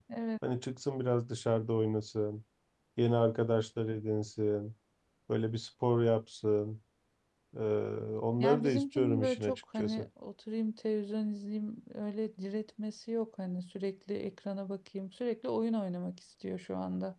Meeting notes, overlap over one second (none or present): present